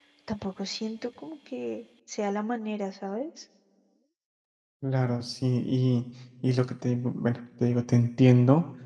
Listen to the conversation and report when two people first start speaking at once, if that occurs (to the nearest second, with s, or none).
none